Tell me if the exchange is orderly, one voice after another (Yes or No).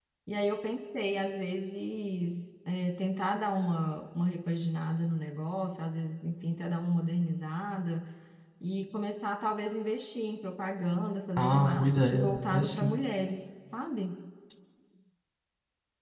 No